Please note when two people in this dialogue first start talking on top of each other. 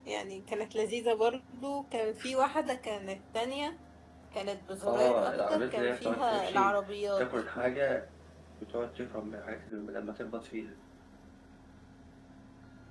5 s

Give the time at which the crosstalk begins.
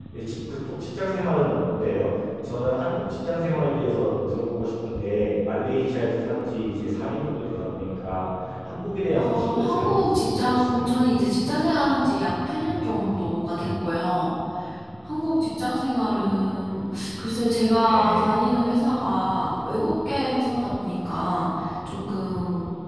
9 s

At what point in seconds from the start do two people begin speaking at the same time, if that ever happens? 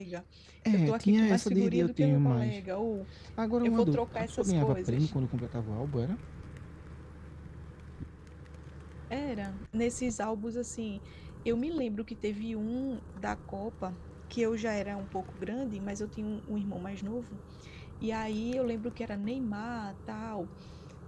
1 s

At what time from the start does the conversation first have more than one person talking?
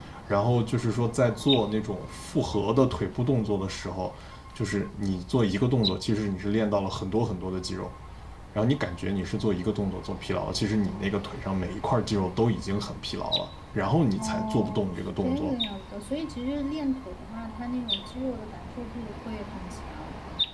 14 s

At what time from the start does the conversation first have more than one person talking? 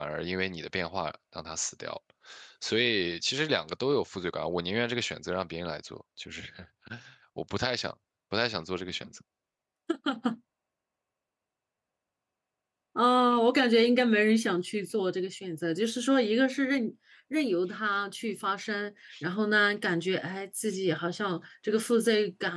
none

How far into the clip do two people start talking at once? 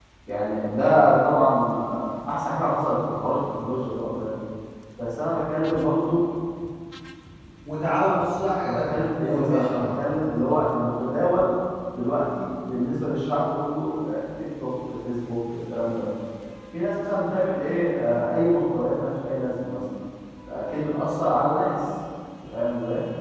9 s

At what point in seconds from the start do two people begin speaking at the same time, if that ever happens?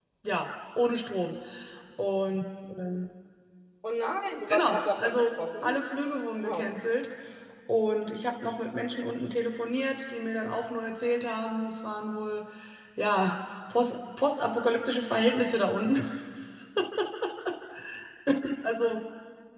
4 s

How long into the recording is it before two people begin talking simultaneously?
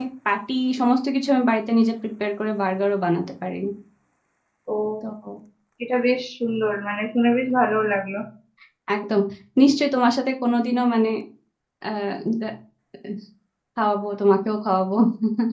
none

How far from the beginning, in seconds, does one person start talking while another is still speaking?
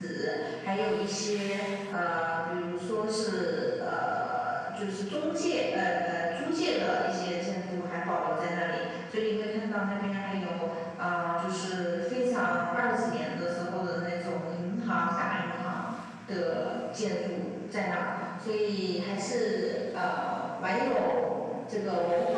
none

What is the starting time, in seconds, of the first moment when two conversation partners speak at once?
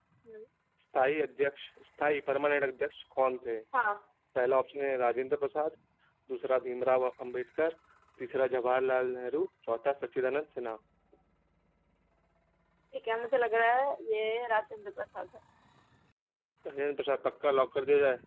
none

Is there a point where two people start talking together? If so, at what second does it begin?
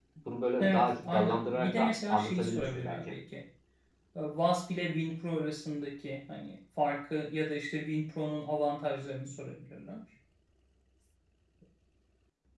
1 s

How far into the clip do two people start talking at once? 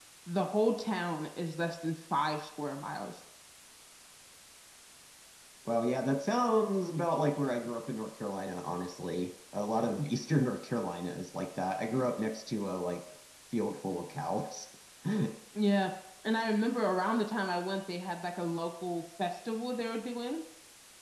none

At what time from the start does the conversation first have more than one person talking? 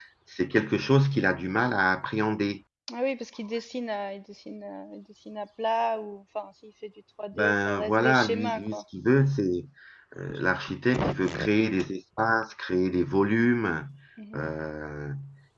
7 s

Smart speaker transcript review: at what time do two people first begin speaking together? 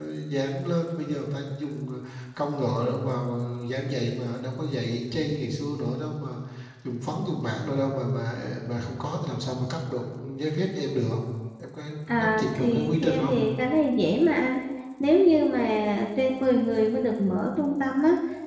12 s

